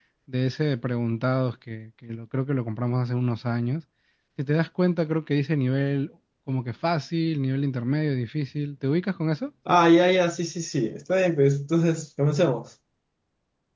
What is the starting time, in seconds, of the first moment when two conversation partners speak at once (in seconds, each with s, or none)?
none